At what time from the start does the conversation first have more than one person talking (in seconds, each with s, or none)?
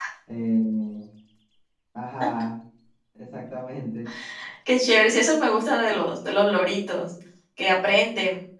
none